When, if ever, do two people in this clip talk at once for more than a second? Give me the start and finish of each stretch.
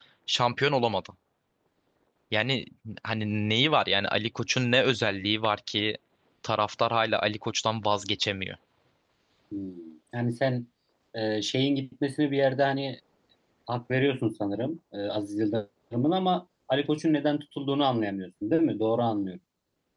none

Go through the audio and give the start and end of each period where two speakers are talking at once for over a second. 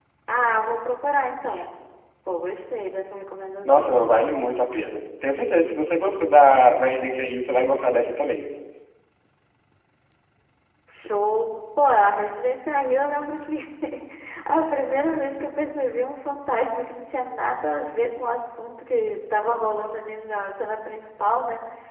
none

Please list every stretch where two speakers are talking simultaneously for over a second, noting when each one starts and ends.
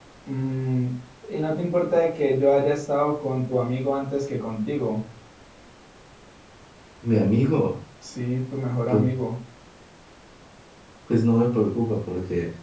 none

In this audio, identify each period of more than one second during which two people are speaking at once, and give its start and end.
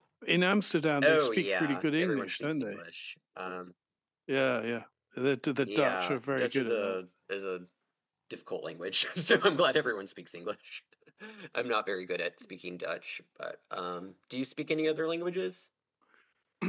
1.0-2.8, 5.7-7.0

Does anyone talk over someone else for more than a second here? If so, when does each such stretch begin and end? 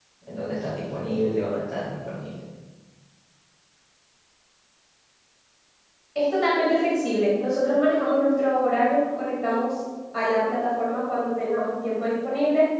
none

